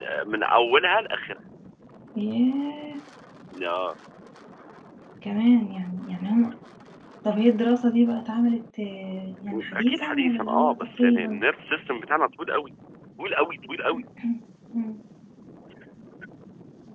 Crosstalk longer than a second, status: present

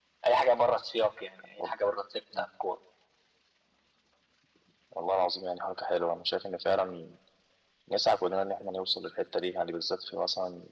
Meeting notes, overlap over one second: none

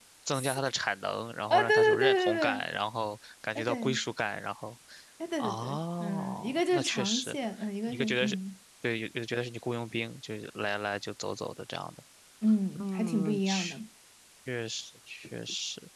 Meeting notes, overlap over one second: present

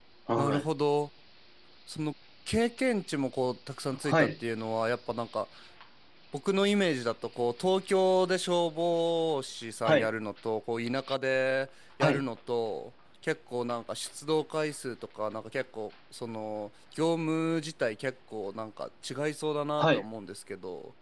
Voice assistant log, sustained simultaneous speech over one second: none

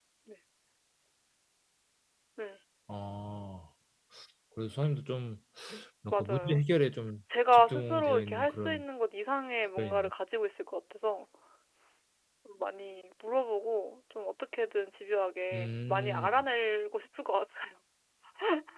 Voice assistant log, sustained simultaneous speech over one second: present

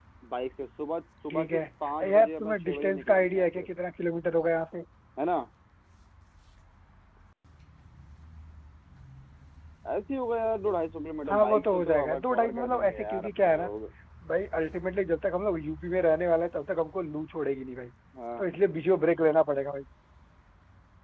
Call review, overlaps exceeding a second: present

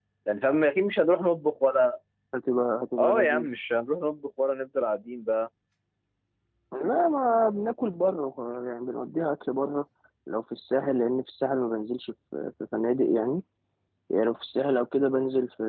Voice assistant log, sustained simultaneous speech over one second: none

